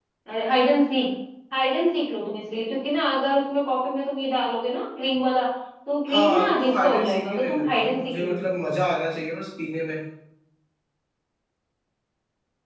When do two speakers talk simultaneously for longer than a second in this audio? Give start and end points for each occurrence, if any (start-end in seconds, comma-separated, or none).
6.1-8.3